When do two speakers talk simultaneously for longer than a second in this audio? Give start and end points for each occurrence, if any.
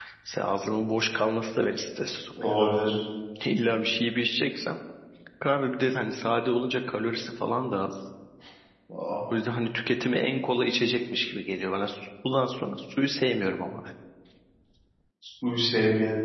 none

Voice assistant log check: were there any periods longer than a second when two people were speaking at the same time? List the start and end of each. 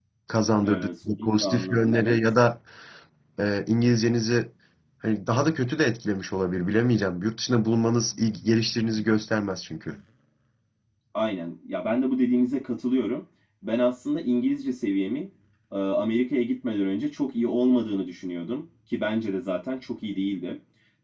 0.6-2.3

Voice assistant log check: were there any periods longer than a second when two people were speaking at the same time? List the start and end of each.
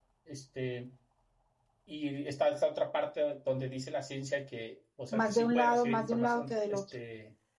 5.1-6.8

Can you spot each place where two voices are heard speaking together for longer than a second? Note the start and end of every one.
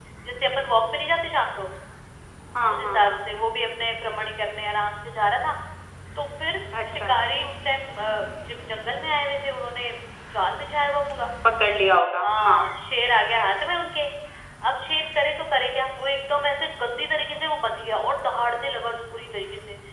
none

